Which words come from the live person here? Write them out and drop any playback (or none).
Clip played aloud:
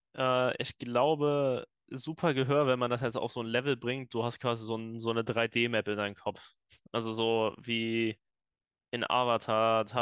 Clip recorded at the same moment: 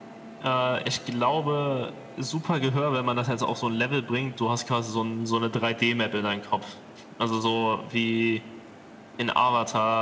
none